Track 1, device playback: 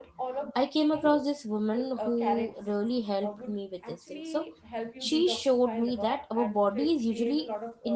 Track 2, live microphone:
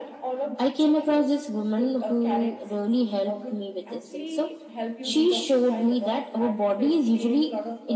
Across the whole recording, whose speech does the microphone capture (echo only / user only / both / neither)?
echo only